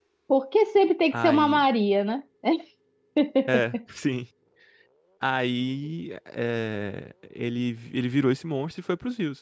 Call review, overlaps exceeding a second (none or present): none